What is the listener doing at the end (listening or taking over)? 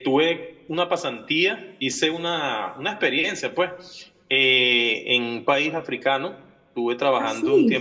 listening